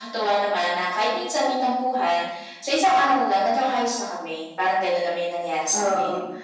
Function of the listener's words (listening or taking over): taking over